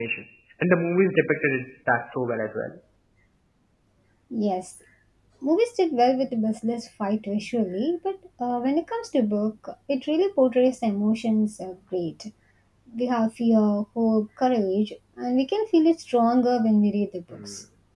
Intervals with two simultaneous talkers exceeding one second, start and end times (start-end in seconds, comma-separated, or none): none